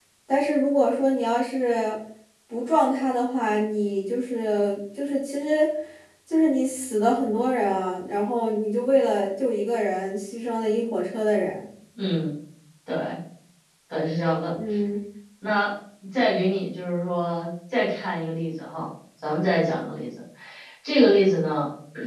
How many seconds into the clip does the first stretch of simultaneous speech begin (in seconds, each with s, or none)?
none